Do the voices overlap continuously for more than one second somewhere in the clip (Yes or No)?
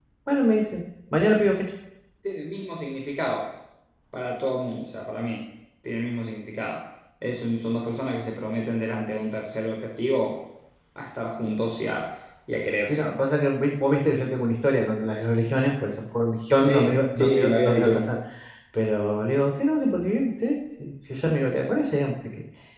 Yes